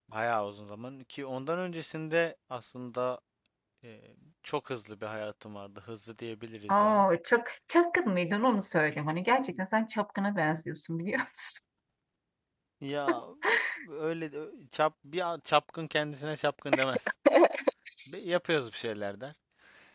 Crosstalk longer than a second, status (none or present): none